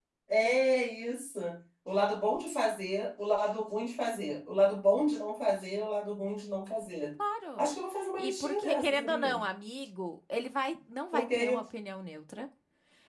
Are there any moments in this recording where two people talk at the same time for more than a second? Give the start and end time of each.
8.2-9.4

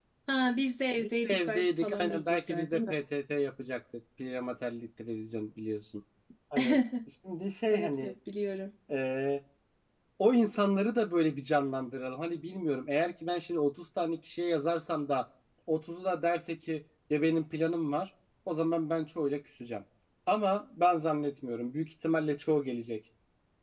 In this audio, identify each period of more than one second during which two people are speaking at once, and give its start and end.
1.0-3.0

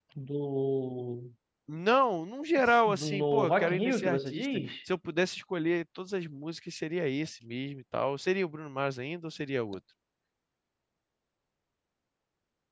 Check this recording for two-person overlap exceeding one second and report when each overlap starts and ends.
2.9-4.7

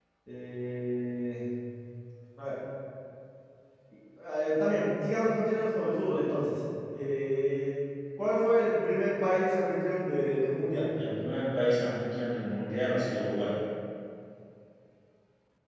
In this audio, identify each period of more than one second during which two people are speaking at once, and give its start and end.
none

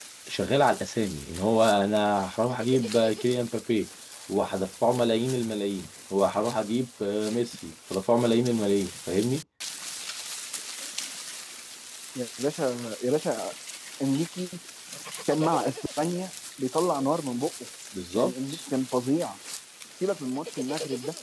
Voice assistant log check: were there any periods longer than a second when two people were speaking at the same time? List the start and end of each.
none

